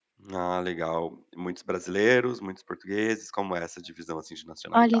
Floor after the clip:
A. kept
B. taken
B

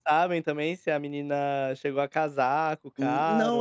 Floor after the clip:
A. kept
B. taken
B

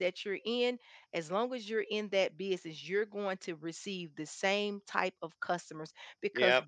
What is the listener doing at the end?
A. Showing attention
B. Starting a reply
A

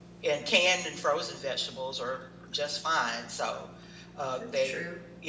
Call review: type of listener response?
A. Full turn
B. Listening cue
B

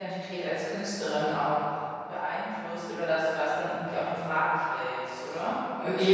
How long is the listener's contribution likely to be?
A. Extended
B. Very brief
A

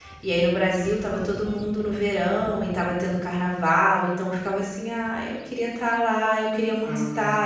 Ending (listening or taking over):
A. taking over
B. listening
B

